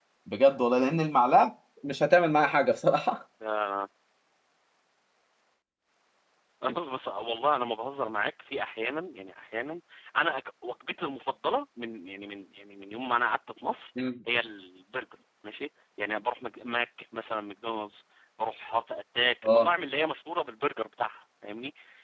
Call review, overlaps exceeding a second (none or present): none